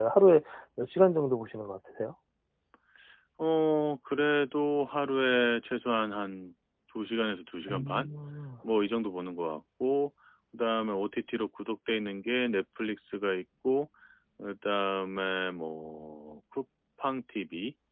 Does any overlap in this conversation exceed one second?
No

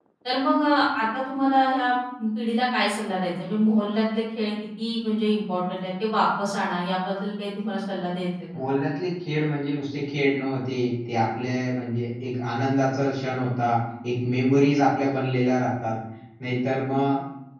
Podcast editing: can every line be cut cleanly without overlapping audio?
Yes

